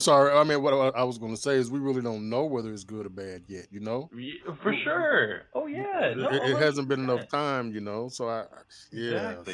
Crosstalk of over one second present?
Yes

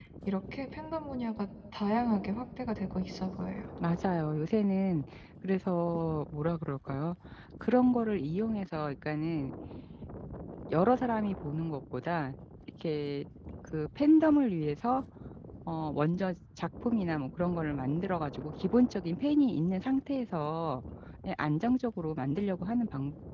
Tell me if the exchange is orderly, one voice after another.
Yes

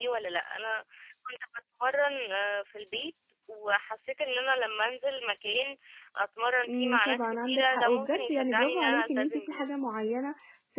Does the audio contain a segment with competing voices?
Yes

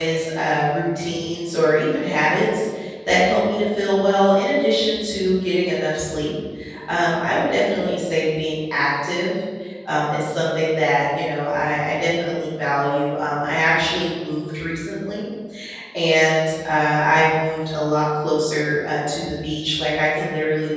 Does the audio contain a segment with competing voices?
No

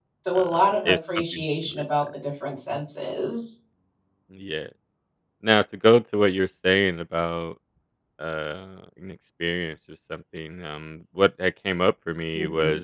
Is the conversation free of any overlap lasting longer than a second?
No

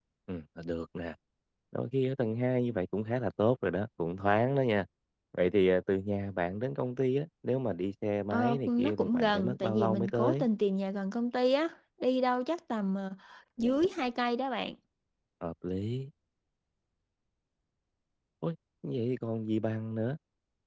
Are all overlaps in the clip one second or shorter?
No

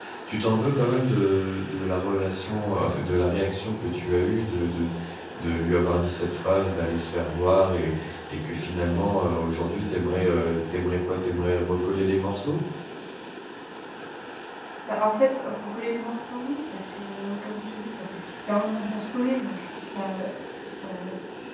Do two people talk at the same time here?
No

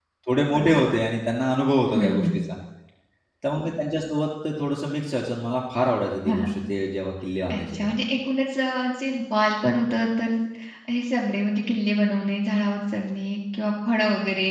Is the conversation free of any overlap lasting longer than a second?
Yes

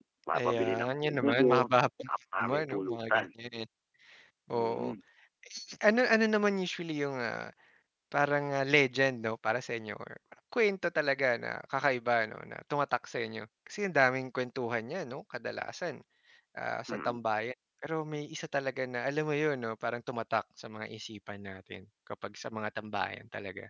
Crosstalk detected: Yes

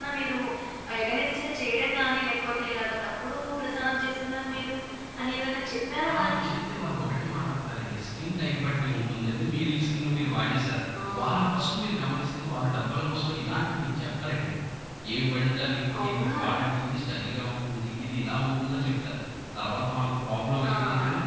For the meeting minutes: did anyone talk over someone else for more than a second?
No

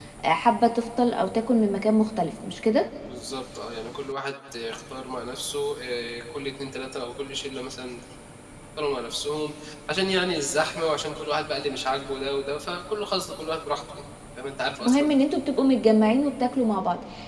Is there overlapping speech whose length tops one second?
No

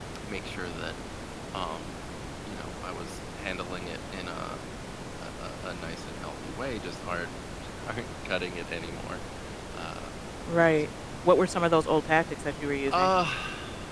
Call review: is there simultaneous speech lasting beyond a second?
No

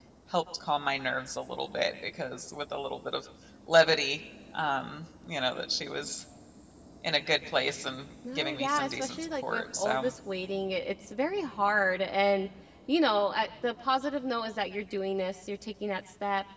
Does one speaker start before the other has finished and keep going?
Yes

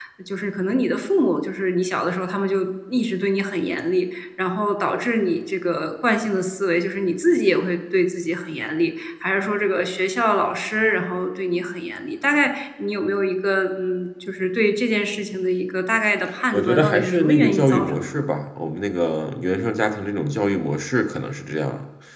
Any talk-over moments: Yes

